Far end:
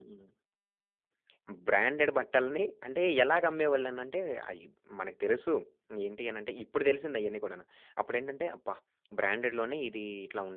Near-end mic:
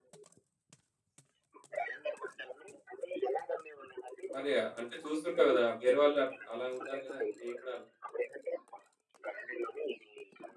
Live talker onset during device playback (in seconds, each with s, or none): 4.3 s